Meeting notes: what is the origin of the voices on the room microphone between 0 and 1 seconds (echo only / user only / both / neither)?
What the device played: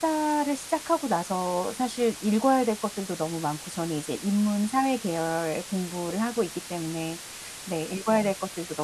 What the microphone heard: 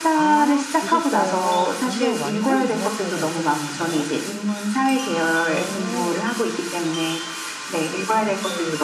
both